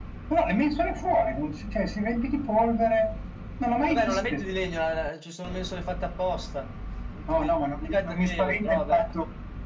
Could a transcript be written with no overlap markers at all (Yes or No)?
No